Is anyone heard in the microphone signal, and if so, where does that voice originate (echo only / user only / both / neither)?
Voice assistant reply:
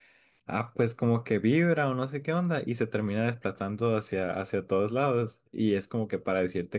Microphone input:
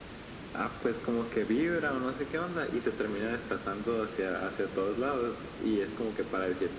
echo only